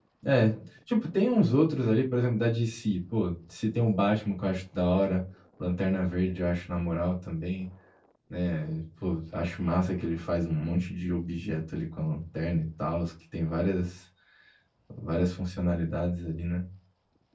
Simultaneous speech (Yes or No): No